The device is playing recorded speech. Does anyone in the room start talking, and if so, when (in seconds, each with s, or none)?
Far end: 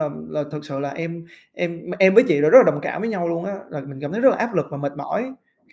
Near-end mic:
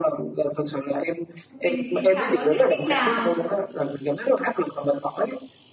1.5 s